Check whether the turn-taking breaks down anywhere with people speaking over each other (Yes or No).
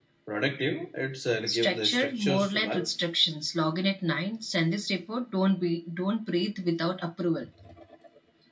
Yes